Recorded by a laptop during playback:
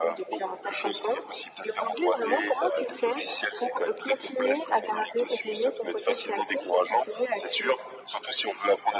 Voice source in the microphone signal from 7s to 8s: echo only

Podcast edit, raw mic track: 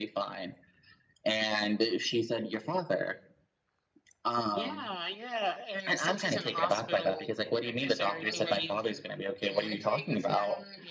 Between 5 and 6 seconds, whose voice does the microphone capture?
echo only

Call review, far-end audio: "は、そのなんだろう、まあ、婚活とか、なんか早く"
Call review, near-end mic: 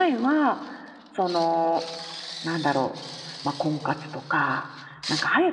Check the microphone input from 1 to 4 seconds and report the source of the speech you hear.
echo only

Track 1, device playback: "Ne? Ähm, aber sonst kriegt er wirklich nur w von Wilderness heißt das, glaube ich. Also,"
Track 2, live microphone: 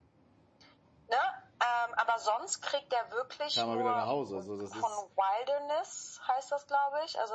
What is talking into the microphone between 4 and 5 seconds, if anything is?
both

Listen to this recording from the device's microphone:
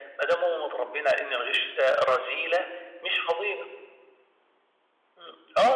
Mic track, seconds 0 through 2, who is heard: echo only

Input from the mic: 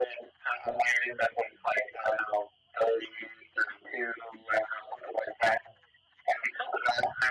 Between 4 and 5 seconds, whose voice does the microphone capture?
echo only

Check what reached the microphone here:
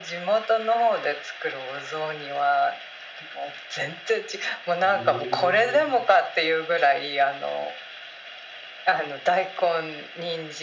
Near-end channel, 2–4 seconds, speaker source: echo only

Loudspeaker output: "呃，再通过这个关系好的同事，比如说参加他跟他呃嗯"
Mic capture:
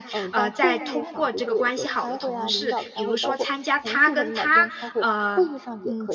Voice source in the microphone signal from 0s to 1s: both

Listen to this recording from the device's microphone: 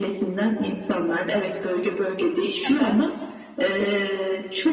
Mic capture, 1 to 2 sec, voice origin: echo only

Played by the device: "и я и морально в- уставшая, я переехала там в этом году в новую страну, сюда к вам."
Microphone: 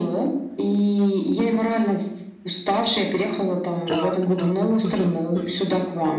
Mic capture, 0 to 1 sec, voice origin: echo only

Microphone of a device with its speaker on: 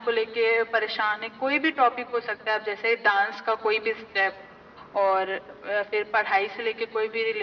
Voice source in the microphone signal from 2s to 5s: echo only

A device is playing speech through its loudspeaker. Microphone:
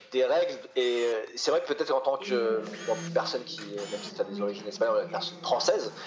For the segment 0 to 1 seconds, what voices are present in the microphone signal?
echo only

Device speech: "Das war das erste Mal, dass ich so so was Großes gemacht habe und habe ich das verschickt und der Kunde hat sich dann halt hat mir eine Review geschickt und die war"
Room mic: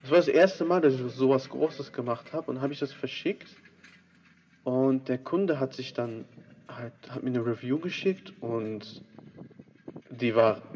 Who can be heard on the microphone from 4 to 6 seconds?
echo only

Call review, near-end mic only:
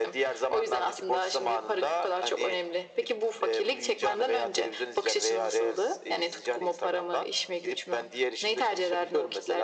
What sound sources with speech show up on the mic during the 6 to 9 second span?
echo only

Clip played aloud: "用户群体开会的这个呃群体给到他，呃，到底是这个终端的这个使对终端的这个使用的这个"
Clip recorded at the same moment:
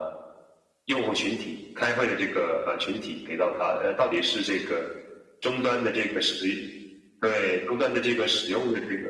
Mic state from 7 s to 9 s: echo only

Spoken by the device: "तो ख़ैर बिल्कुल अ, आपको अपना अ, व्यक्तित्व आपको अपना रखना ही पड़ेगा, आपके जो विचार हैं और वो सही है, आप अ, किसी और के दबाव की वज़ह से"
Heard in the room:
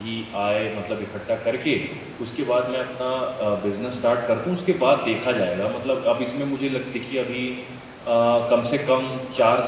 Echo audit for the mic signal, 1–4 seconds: user only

